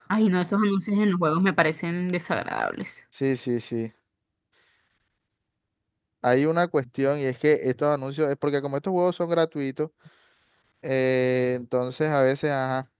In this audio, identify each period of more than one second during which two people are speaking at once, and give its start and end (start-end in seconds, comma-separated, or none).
none